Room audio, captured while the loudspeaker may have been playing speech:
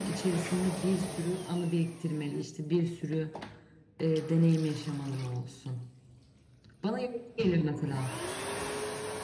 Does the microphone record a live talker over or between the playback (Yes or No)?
No